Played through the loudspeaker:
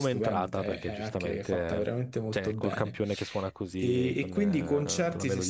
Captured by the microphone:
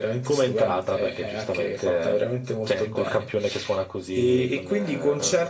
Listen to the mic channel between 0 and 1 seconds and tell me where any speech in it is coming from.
echo only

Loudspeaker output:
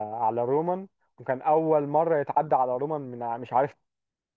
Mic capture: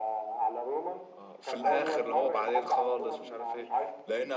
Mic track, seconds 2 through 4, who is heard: both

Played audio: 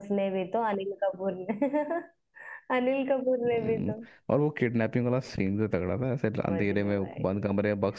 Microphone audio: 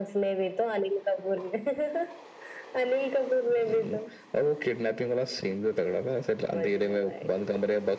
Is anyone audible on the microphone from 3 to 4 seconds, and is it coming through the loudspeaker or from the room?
echo only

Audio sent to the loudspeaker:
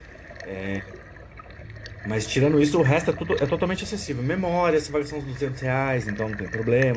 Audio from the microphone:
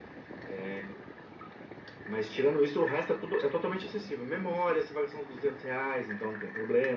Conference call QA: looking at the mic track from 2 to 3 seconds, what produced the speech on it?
echo only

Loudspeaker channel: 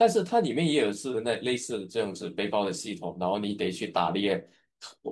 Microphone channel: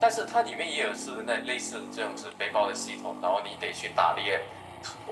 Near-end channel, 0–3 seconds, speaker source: echo only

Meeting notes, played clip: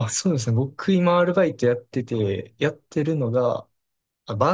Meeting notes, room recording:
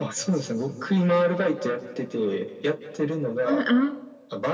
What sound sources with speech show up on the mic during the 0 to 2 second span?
echo only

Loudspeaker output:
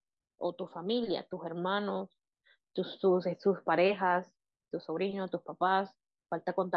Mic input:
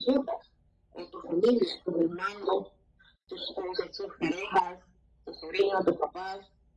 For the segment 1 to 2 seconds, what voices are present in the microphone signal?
echo only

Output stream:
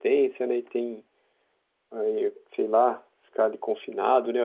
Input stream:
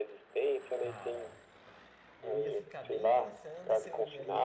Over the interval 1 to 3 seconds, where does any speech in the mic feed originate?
both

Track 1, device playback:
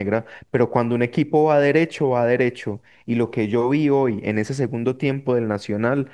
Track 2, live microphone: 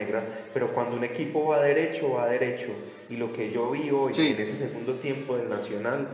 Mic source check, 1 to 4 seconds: echo only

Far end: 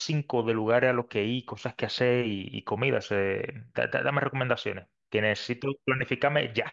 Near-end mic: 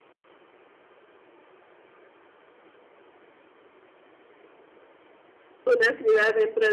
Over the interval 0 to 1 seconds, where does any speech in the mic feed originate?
neither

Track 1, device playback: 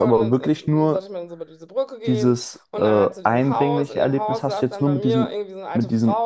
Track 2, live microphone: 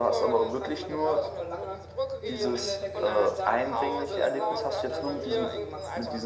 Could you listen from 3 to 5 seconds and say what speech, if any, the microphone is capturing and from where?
both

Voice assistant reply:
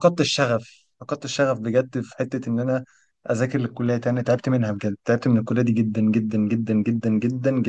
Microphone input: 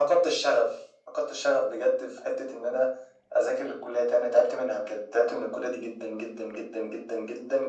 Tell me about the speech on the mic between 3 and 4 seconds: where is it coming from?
echo only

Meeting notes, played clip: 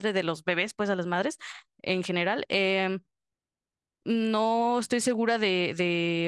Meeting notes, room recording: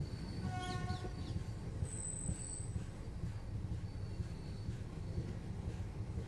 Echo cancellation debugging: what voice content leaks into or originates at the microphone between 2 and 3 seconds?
neither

